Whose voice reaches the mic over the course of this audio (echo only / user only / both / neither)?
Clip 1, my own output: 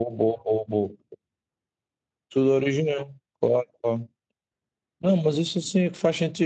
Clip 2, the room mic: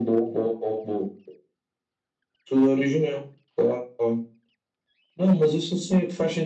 echo only